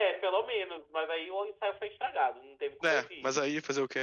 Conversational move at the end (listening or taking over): taking over